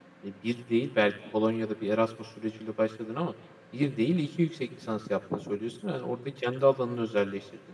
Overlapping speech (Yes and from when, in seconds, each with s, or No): No